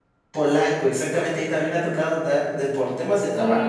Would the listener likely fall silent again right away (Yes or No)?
Yes